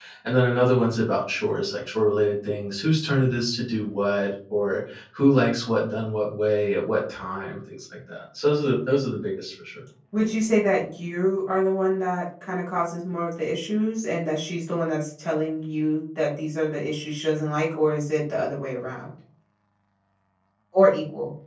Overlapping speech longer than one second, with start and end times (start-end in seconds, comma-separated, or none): none